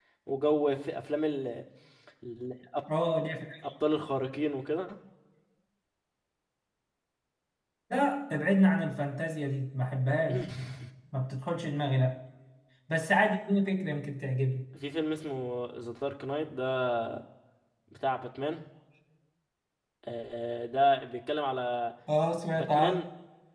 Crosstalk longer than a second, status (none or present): none